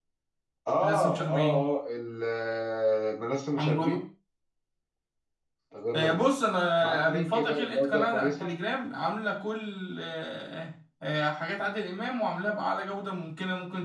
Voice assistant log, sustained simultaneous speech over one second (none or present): present